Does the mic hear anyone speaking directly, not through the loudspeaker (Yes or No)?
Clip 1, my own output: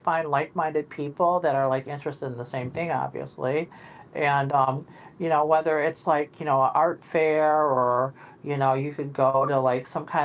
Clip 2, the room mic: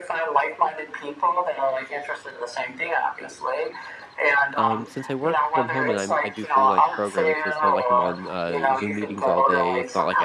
Yes